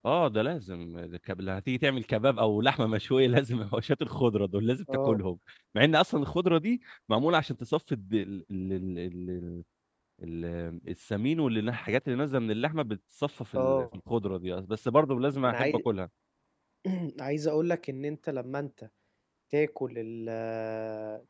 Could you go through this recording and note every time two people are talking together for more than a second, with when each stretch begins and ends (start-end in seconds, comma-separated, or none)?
none